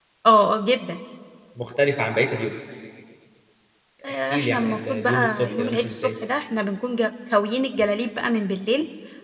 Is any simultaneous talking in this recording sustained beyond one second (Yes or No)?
Yes